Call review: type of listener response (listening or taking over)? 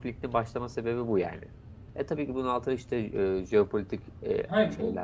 taking over